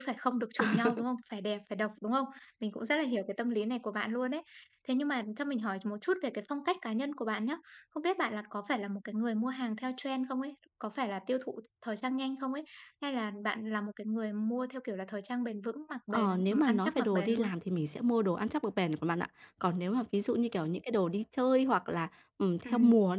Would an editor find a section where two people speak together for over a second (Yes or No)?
Yes